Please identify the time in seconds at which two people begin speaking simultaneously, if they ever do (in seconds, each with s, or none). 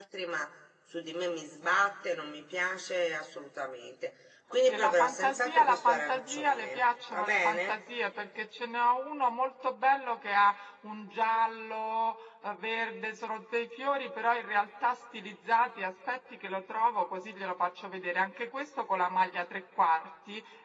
4.7 s